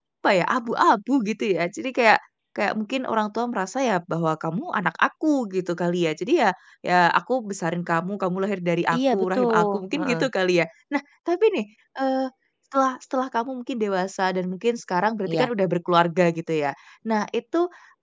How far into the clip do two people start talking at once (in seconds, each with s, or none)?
8.9 s